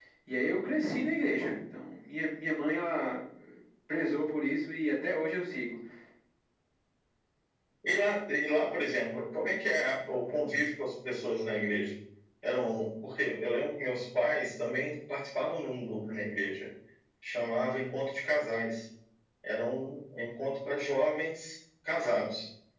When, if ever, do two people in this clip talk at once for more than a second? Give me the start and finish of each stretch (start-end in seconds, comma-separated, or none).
none